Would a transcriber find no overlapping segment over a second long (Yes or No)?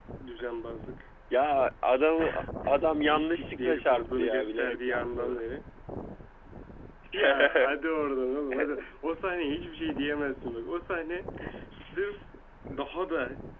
No